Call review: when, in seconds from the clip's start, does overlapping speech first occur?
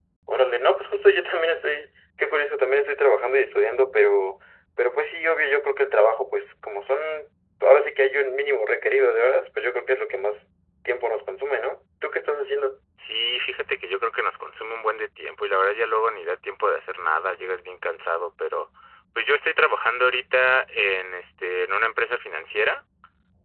none

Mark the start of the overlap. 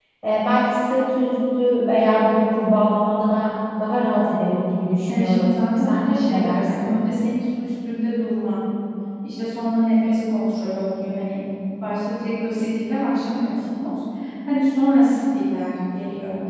5.1 s

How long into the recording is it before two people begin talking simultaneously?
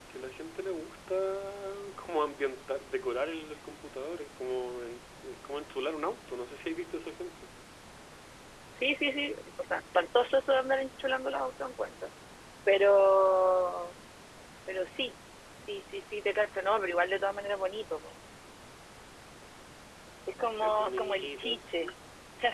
20.6 s

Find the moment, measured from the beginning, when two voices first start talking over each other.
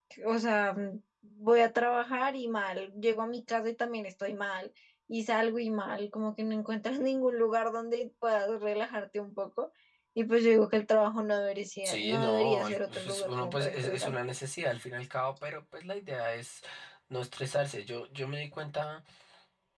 11.8 s

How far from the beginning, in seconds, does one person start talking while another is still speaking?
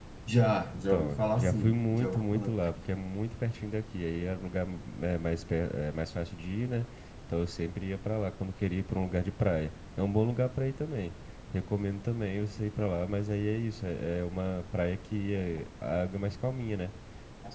0.7 s

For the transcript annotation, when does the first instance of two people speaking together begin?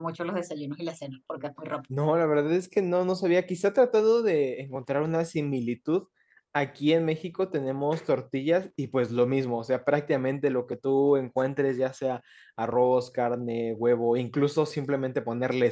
none

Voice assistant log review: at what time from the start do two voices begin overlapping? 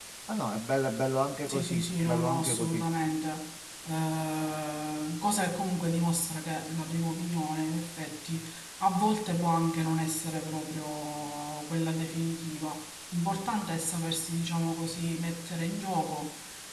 1.5 s

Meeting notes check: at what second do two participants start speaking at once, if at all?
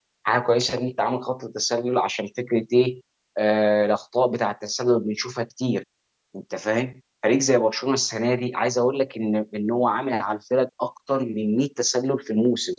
none

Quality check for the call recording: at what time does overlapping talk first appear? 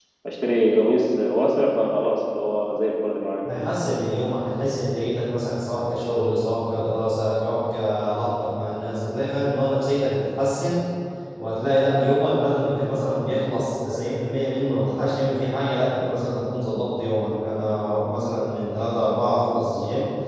none

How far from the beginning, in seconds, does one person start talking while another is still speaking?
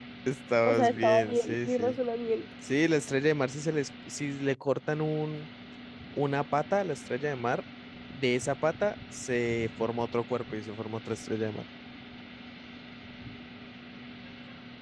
0.6 s

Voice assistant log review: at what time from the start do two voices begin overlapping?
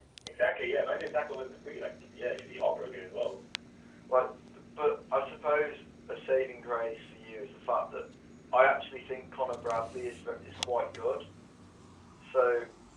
none

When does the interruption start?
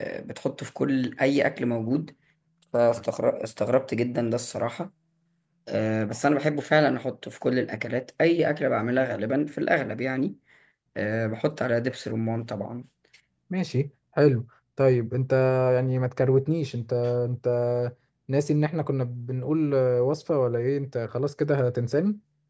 none

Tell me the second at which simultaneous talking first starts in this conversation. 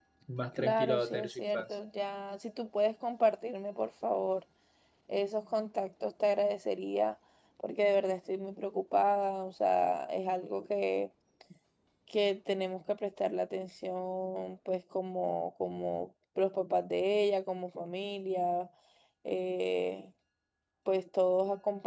0.5 s

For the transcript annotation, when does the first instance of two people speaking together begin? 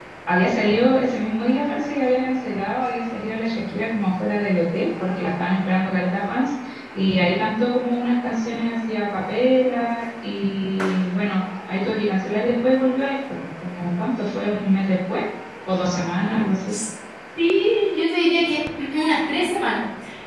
none

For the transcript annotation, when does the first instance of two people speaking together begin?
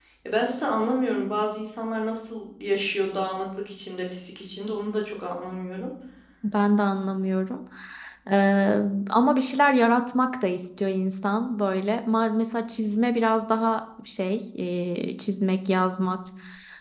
none

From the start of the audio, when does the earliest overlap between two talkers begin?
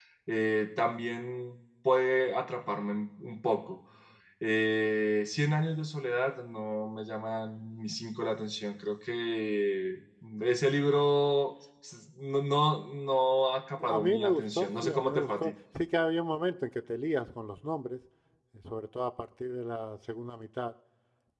13.8 s

